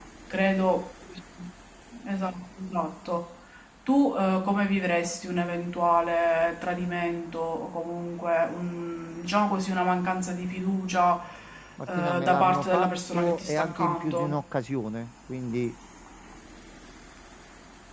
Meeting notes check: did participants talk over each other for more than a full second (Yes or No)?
Yes